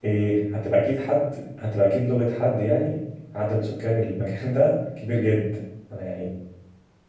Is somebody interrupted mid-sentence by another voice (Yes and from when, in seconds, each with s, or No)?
No